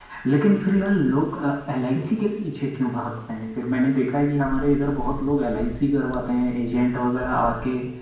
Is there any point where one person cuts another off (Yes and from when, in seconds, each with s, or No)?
No